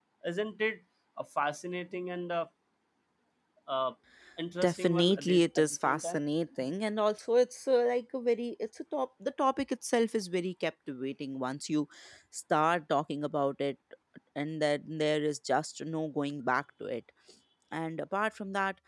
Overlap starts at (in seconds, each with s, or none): 4.6 s